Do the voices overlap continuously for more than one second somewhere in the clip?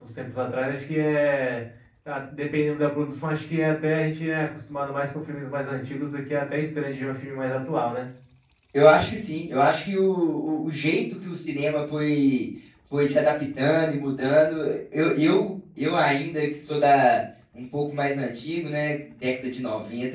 No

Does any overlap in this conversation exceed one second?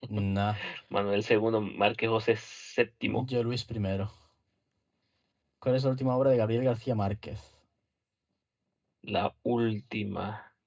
No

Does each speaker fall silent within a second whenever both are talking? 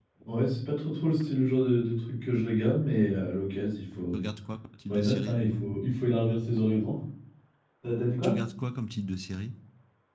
Yes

